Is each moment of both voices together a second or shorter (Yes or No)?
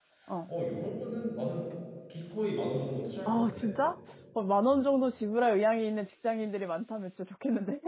Yes